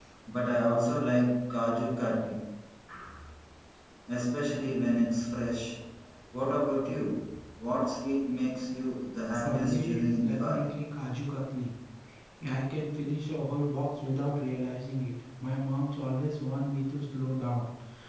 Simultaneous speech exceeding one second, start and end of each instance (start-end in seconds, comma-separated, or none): 9.4-10.7